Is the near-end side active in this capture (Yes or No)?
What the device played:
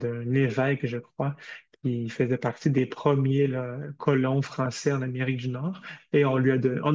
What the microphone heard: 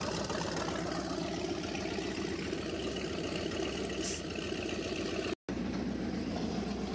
No